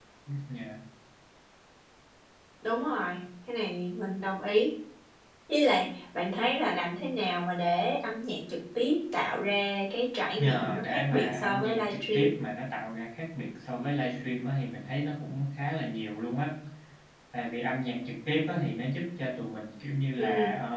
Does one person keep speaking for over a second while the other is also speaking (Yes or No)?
Yes